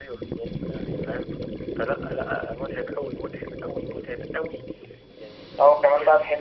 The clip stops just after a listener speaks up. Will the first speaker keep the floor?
No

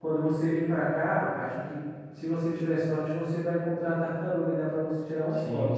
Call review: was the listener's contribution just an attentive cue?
No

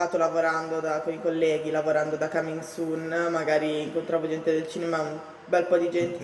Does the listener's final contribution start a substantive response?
No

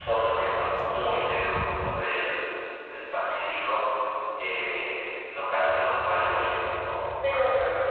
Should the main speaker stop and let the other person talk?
Yes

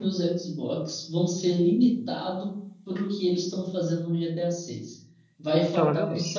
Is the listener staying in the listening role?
Yes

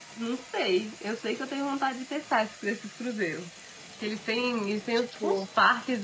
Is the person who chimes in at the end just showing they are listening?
Yes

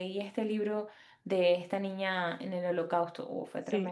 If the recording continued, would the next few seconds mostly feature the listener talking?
Yes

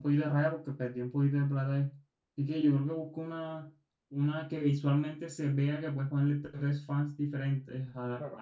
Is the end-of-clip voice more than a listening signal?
No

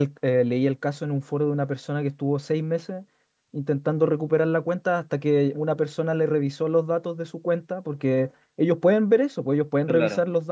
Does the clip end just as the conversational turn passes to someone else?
No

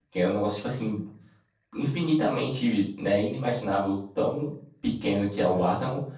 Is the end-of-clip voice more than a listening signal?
No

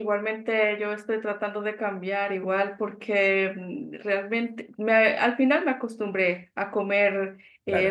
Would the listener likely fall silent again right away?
Yes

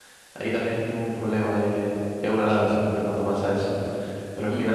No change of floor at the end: Yes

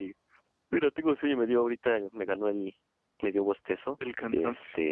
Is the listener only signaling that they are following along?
Yes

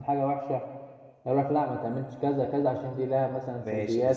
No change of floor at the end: No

